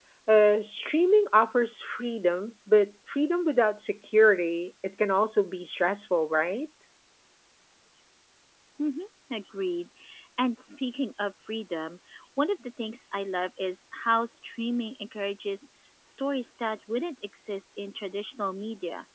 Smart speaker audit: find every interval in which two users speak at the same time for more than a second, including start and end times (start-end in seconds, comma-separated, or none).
none